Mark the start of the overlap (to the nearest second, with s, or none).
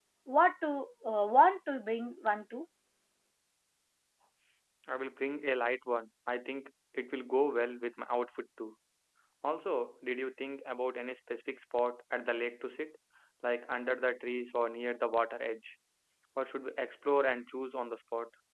none